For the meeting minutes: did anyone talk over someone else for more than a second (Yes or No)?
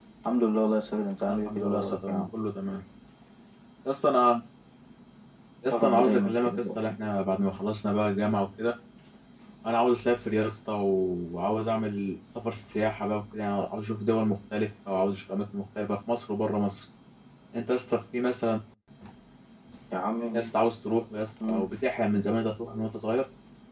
Yes